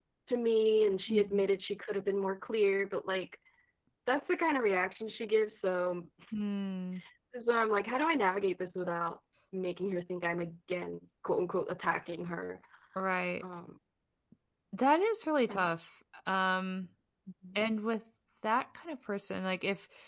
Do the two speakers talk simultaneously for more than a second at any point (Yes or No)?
No